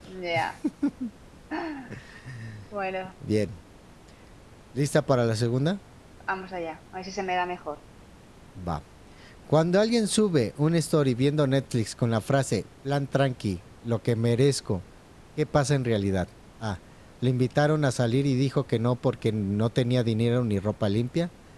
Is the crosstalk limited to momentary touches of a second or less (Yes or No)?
Yes